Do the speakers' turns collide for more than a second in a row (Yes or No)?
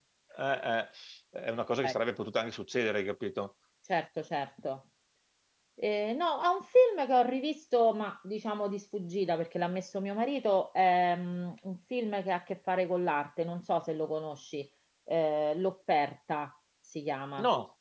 No